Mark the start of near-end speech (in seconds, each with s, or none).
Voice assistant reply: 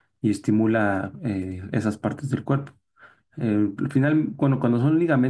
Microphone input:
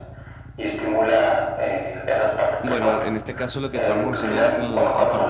2.6 s